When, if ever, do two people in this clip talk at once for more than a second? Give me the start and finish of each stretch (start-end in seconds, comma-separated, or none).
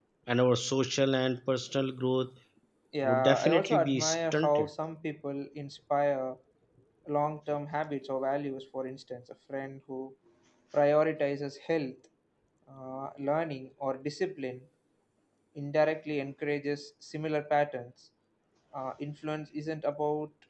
3.0-4.7